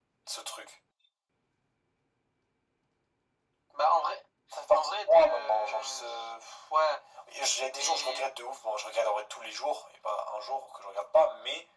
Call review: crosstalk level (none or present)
present